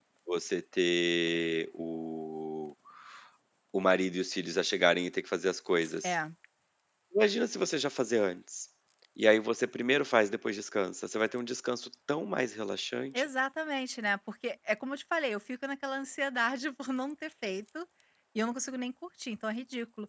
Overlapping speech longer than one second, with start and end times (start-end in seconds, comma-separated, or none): none